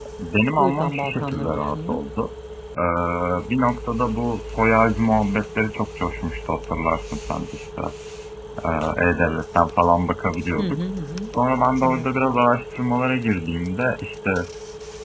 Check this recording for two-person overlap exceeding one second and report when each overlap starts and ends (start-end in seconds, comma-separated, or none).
0.6-2.0